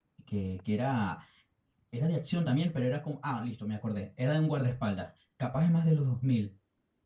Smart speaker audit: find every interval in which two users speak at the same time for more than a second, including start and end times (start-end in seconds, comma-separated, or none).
none